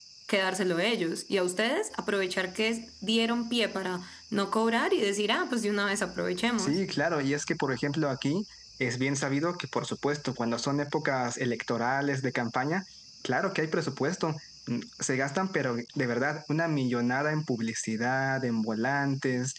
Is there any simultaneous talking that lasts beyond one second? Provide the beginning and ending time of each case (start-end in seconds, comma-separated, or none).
none